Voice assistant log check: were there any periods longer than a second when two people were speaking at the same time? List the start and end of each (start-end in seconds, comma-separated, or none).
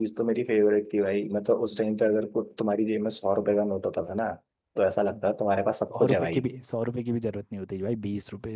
none